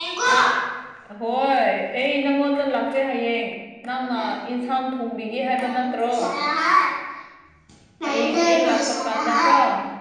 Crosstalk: present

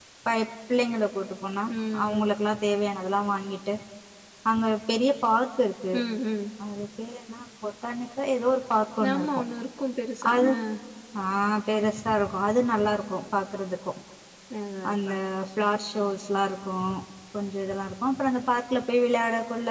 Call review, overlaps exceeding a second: none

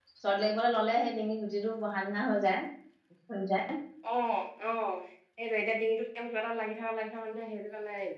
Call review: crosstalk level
none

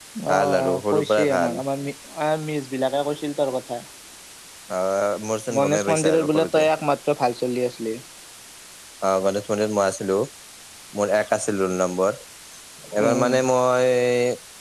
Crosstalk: present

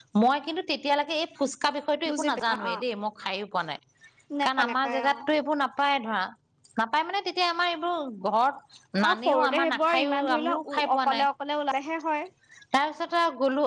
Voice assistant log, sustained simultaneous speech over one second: present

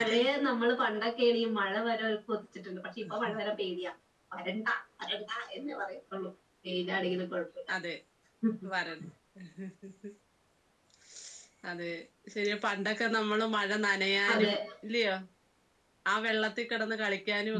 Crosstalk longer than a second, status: none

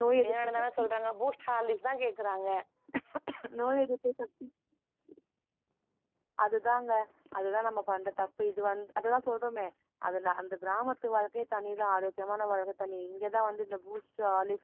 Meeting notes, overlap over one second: none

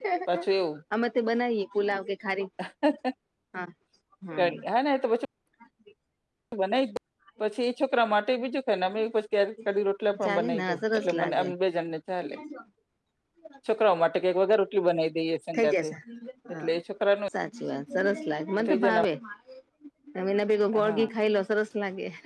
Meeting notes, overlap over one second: present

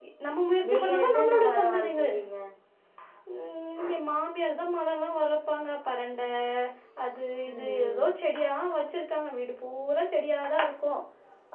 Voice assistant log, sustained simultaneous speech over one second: present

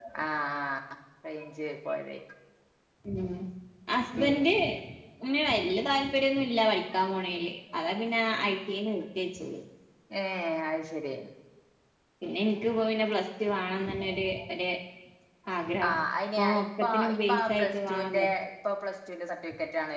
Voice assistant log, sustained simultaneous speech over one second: present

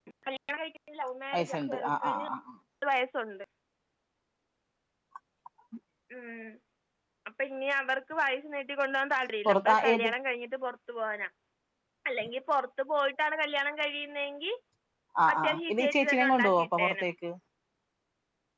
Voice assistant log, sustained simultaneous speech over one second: present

